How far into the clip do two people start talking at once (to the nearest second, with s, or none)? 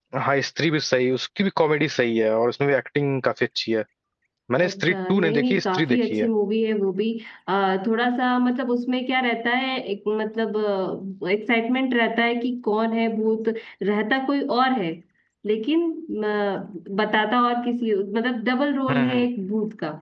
5 s